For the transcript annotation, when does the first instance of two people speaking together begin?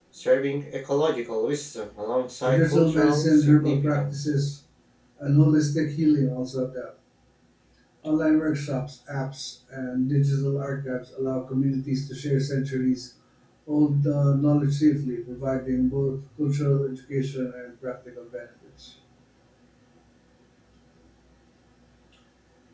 2 s

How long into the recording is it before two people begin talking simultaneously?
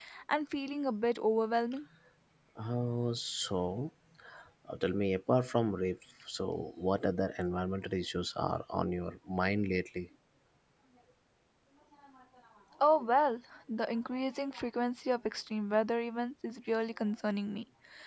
none

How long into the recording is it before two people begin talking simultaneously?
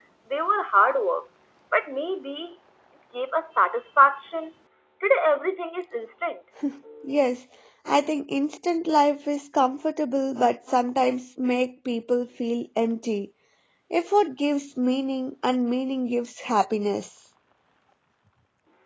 none

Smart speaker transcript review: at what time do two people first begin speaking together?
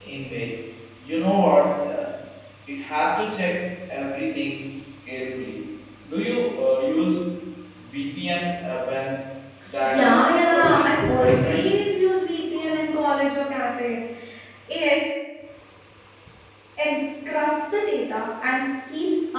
10 s

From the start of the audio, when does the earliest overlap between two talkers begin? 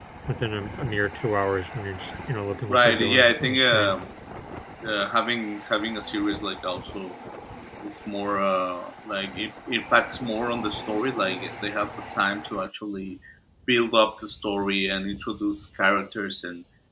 3 s

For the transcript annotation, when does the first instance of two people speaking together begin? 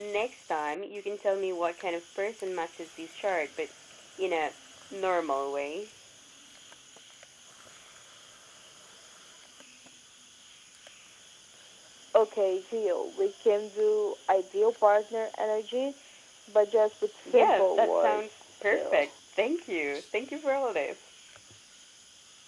17 s

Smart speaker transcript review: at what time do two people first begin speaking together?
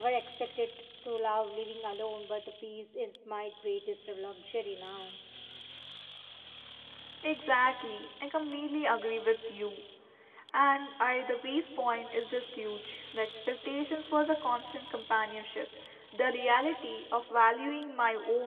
none

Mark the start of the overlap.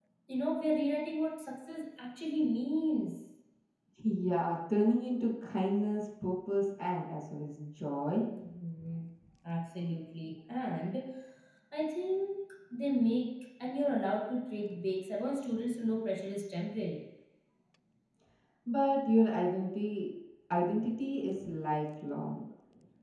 none

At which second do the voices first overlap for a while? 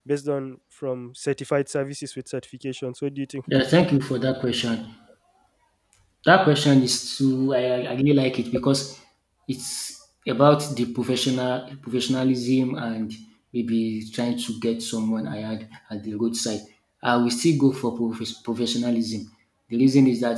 none

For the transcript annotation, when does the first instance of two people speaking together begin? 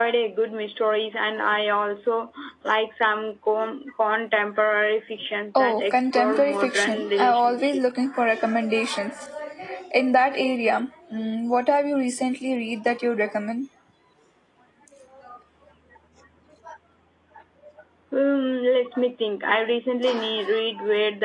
6 s

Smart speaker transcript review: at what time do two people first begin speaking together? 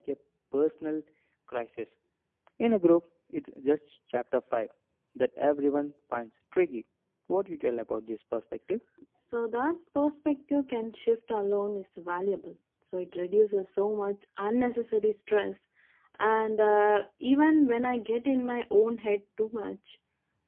none

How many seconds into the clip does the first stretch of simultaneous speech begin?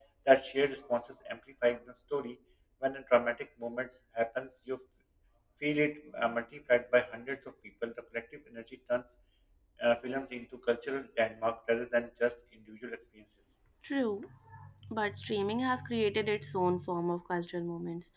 none

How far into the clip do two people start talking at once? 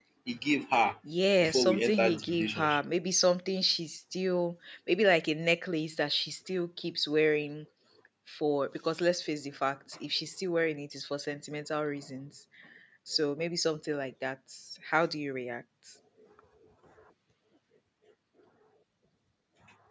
1 s

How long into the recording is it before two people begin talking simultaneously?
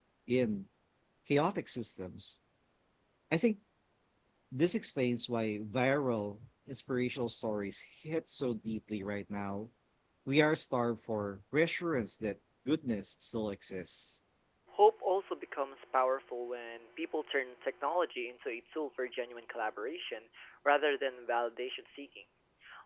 none

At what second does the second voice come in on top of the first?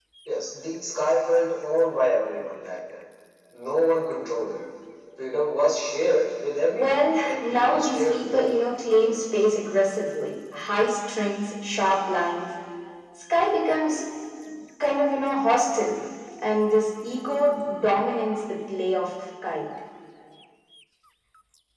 7 s

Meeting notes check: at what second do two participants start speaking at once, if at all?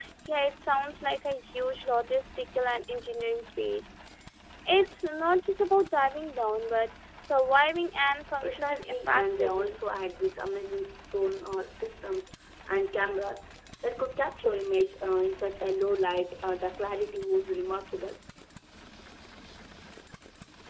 8 s

